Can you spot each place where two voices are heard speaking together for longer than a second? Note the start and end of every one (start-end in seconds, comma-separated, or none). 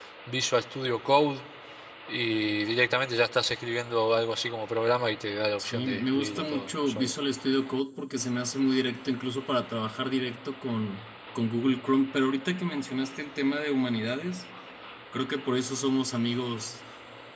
5.6-7.1